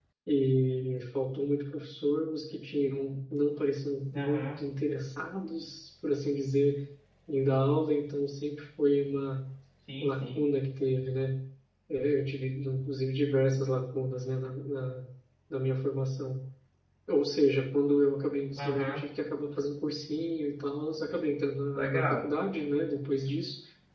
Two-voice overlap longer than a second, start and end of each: none

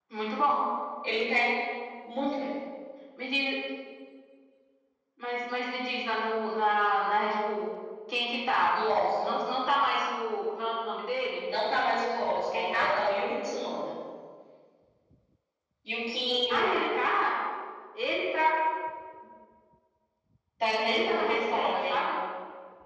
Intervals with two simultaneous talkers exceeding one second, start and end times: 20.8-22.0

